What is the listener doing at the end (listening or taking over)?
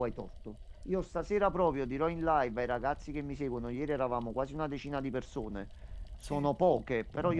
listening